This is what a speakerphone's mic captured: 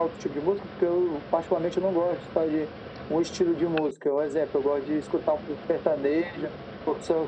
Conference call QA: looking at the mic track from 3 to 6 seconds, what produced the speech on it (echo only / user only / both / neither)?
echo only